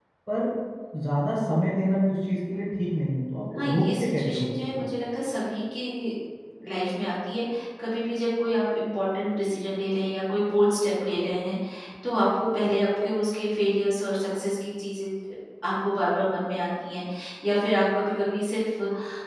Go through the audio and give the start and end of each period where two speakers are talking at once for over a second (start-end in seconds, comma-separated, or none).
3.6-4.9